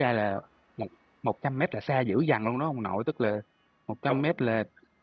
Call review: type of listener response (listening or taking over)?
listening